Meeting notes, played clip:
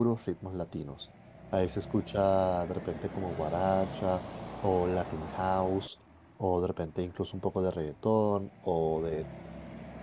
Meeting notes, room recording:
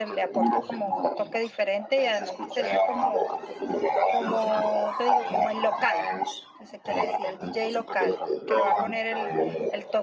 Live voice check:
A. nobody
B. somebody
B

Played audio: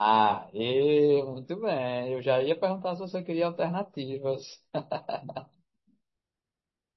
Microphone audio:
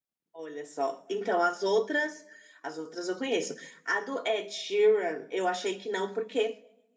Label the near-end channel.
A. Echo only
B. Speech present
B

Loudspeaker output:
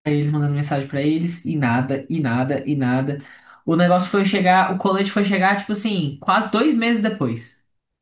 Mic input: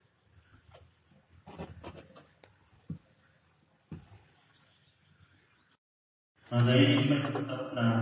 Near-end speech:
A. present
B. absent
A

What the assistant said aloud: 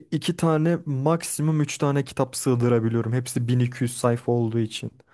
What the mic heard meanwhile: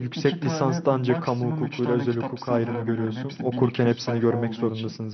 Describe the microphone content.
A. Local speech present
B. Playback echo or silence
A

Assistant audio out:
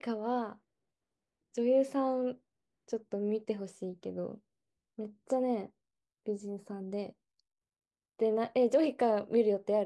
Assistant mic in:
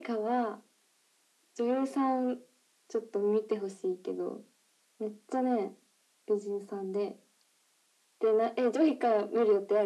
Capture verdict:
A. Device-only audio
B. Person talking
A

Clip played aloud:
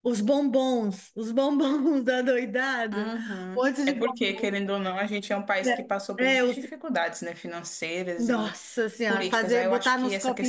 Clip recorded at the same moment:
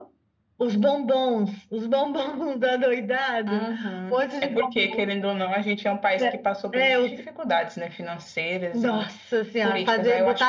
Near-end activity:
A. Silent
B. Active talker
A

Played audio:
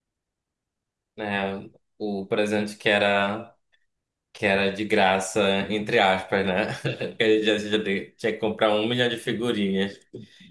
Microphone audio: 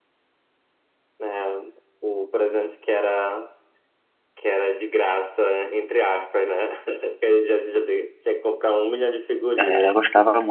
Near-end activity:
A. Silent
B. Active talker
B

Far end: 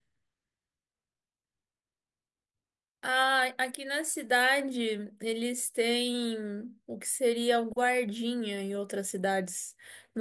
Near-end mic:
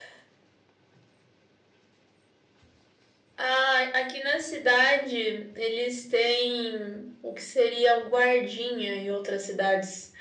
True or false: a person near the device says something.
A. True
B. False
B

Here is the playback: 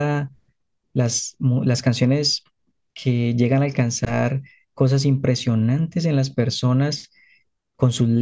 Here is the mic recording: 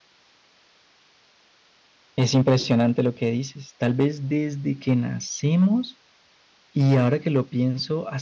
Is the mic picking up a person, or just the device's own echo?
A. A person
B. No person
A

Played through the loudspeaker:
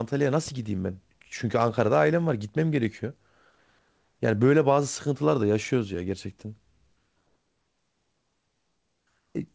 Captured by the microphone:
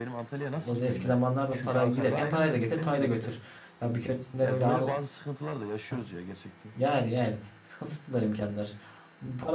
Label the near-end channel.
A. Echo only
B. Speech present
B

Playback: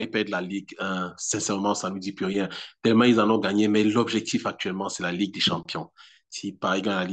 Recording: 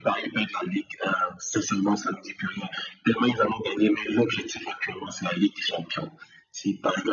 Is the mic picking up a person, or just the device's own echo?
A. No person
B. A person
A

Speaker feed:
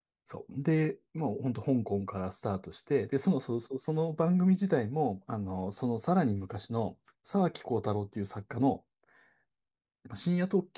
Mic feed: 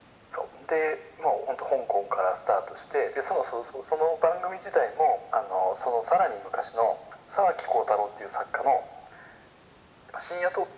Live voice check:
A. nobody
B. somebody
A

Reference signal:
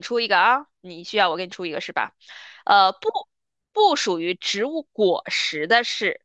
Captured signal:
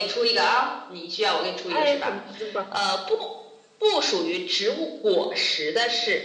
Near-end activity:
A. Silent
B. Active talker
B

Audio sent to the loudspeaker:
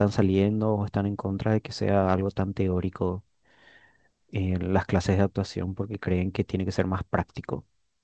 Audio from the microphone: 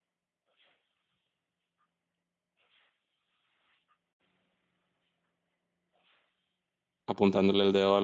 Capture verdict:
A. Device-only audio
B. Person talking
B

